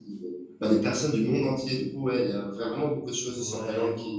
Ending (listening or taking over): taking over